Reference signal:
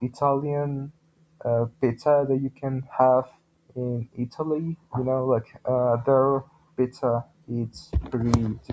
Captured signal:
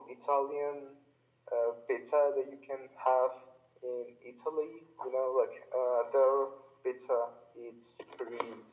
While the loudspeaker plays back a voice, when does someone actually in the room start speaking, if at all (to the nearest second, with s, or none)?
none